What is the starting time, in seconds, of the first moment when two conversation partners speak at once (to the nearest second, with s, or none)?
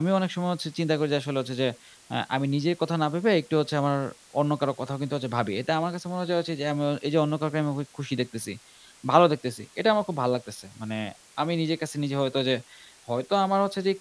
none